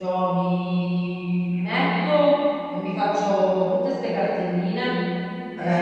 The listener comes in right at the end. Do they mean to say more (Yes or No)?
No